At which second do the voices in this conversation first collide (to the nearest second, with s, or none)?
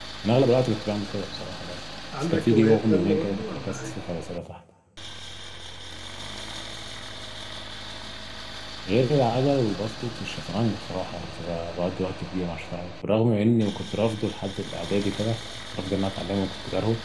2 s